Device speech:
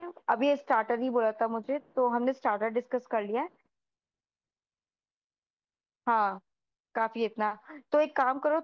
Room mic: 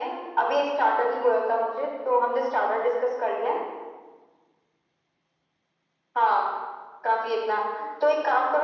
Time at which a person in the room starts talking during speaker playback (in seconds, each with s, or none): none